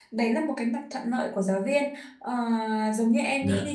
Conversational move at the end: listening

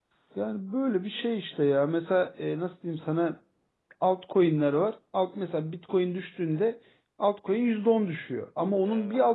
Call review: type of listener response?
listening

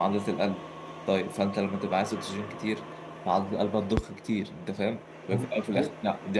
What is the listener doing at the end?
listening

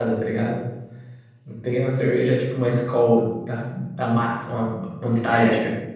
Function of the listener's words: taking over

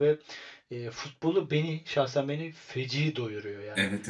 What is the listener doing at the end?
taking over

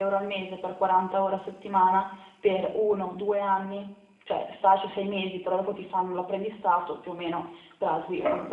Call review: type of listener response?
listening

